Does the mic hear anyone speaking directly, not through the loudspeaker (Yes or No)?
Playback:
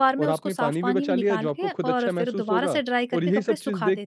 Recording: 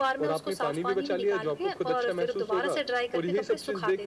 No